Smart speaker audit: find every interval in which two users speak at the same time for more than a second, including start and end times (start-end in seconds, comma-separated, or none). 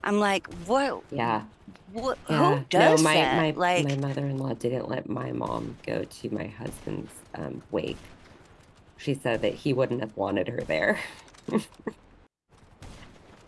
2.3-4.0